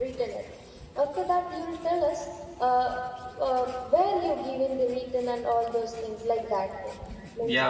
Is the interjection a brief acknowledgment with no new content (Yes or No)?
No